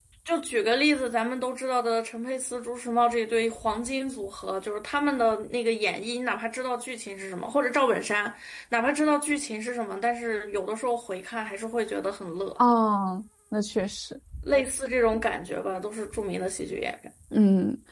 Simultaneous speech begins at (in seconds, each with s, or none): none